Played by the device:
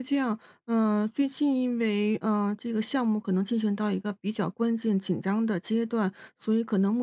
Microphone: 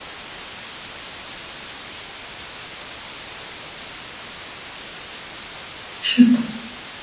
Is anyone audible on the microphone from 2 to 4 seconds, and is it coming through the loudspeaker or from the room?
neither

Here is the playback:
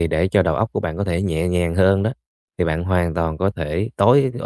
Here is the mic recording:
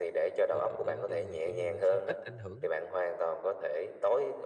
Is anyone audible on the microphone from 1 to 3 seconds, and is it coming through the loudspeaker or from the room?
both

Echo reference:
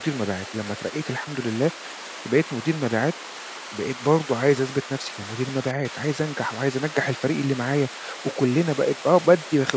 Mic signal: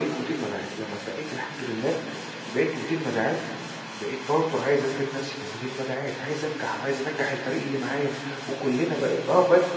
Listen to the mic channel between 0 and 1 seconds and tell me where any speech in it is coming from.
echo only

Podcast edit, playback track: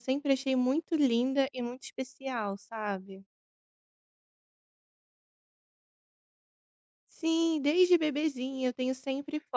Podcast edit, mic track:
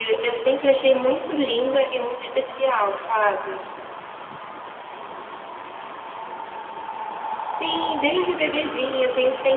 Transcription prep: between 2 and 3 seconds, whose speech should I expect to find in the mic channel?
echo only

